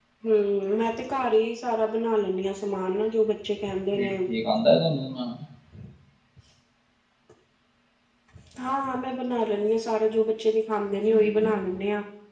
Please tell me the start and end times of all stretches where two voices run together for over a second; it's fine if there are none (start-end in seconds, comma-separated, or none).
none